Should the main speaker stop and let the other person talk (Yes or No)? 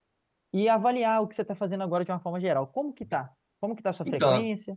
Yes